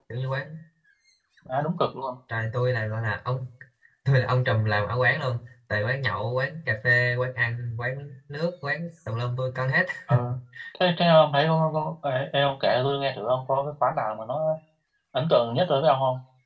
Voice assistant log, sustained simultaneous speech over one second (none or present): none